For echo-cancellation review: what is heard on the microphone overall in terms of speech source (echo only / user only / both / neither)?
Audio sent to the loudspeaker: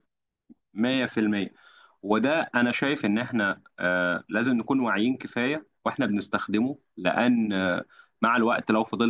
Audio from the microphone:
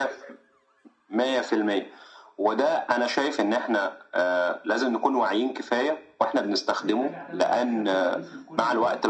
both